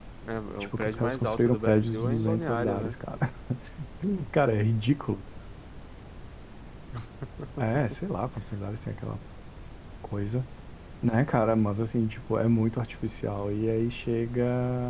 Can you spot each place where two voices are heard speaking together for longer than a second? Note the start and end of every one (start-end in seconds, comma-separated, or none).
0.6-3.0